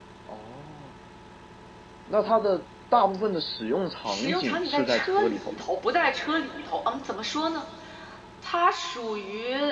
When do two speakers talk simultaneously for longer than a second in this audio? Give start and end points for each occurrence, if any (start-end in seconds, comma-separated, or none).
4.0-5.7